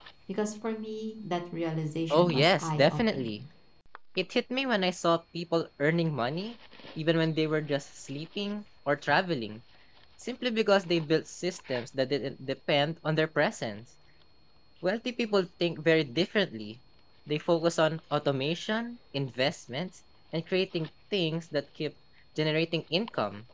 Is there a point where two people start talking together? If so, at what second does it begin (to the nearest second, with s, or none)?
2 s